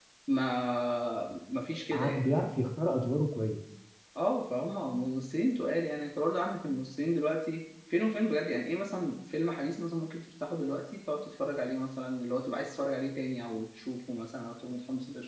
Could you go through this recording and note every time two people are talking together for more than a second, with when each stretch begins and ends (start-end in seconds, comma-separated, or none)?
none